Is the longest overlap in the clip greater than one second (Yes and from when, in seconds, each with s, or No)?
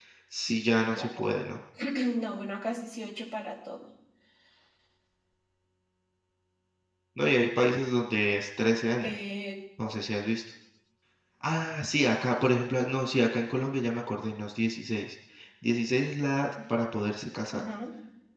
No